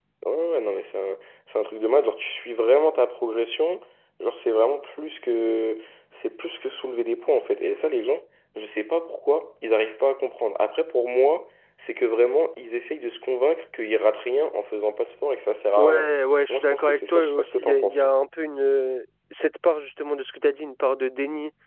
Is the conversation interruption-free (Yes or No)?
No